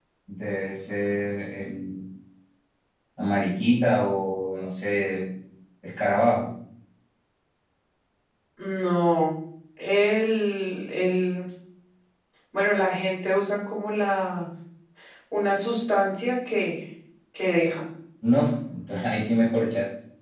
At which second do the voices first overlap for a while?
none

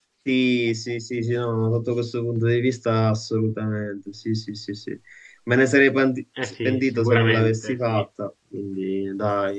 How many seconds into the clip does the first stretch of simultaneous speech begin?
6.6 s

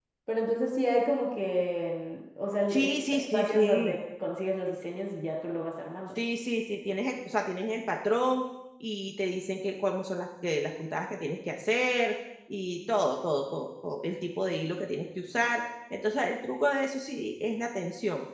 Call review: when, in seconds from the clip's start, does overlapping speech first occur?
2.7 s

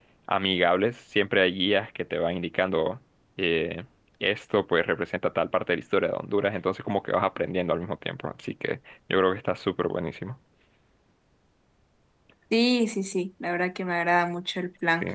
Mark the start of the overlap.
none

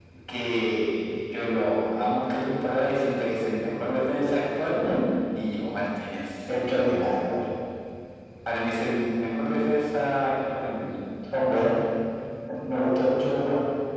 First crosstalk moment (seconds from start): none

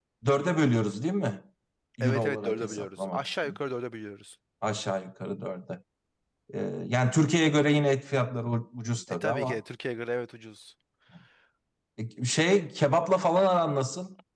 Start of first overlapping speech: 2.0 s

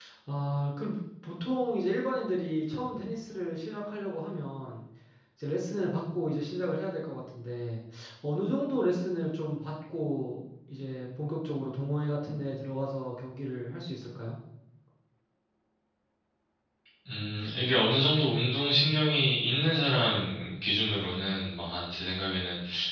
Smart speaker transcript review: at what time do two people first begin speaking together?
none

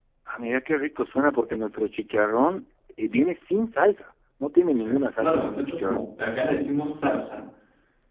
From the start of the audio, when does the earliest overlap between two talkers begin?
4.8 s

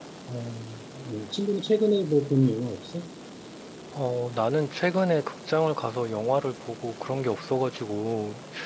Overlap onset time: none

